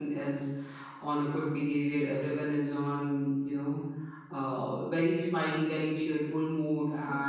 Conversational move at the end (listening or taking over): listening